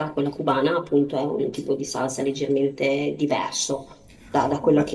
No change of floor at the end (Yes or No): No